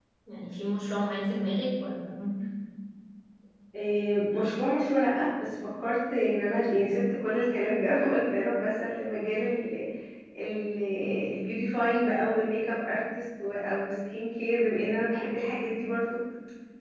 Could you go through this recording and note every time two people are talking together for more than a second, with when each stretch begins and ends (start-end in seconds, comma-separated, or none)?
none